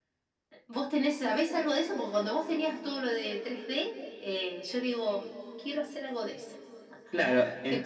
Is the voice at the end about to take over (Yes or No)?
Yes